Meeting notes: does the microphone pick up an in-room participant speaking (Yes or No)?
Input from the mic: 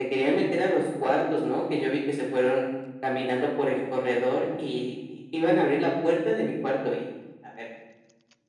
No